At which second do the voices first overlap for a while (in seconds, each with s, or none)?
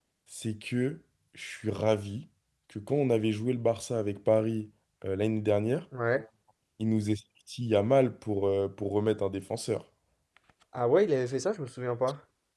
none